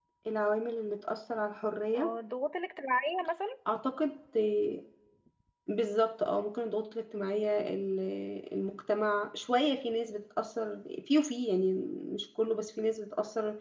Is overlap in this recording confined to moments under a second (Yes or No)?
Yes